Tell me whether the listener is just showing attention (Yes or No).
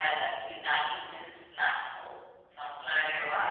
No